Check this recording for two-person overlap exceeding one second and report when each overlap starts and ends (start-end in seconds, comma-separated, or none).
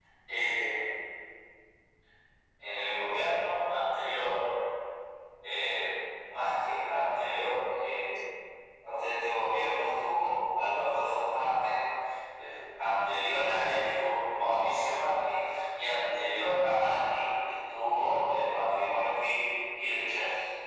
none